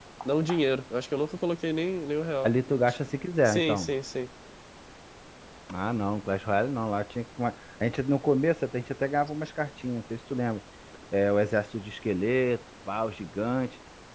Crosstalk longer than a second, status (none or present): none